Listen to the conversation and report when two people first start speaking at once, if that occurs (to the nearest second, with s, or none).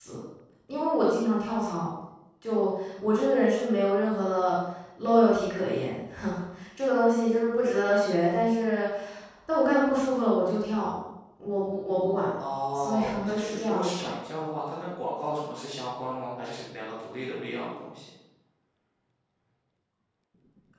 13 s